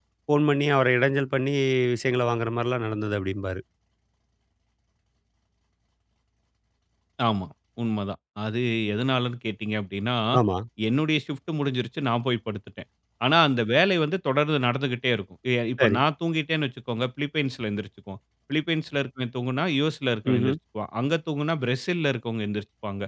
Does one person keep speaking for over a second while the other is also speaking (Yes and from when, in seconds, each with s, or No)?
No